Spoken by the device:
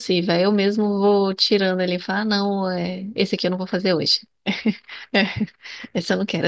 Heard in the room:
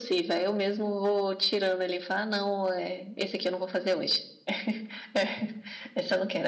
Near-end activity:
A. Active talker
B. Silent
B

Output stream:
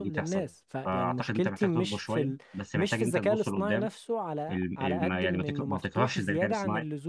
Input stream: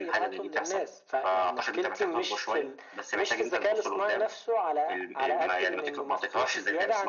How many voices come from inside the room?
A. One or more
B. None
B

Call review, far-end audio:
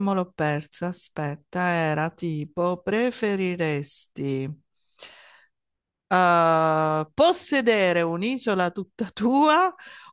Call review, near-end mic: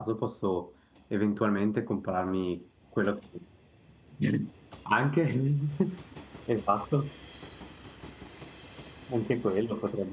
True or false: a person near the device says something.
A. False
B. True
B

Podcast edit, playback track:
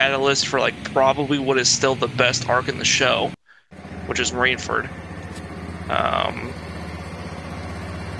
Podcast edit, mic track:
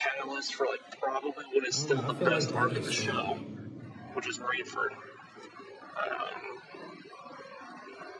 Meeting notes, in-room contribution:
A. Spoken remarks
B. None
A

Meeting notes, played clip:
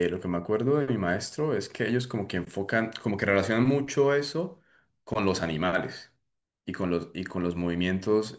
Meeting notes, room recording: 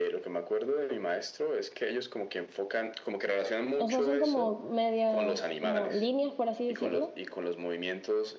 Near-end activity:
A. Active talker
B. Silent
A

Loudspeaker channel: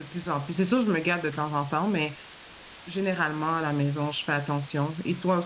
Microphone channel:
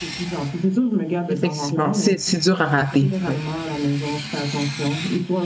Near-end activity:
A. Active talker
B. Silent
A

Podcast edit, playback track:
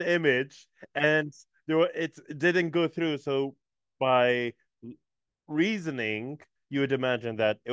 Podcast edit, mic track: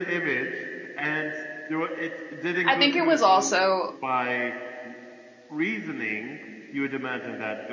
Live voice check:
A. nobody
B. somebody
B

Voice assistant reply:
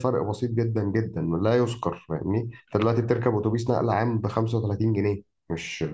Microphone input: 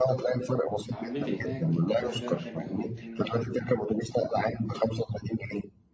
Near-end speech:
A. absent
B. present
B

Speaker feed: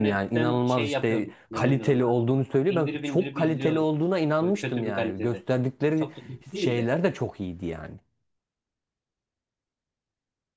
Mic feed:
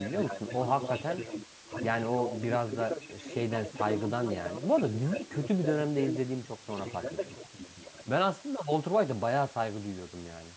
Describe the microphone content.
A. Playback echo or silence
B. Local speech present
B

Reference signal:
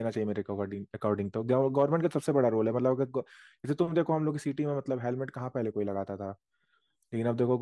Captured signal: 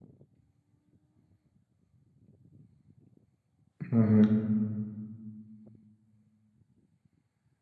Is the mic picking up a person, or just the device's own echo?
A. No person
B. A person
B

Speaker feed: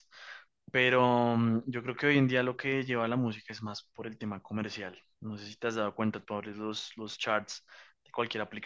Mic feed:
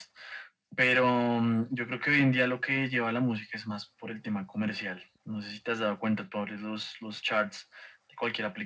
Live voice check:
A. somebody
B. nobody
B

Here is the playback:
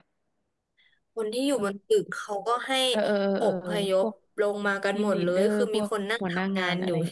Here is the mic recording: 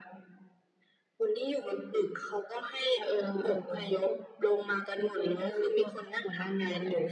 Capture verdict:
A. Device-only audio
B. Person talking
A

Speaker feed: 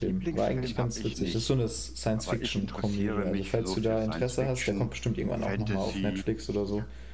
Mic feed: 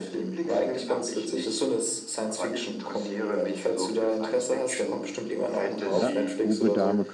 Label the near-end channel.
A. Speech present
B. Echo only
A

